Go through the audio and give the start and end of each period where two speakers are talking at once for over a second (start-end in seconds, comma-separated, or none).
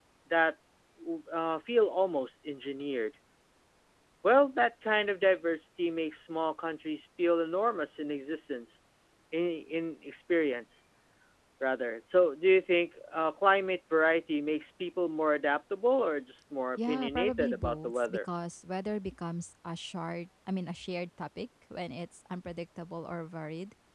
16.8-18.2